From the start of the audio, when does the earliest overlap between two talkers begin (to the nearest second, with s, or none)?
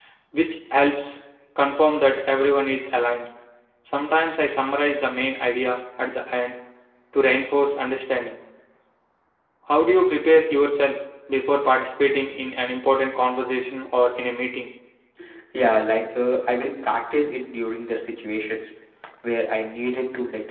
none